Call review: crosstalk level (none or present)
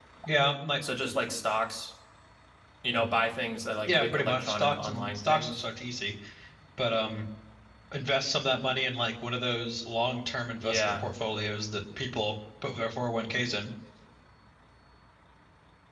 present